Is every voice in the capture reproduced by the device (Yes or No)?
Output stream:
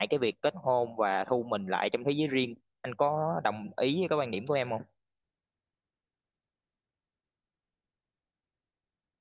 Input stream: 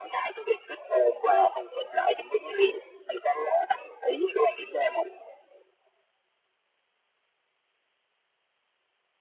Yes